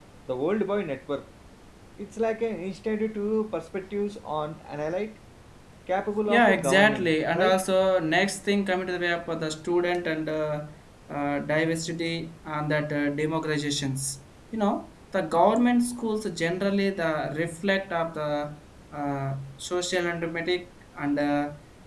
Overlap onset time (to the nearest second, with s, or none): 6 s